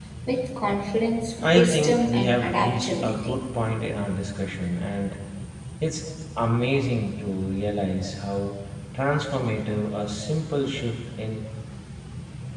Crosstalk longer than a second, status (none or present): present